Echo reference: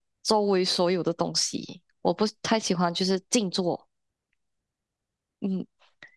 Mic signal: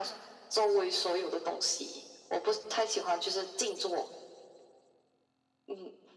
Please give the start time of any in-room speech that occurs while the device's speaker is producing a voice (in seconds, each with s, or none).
none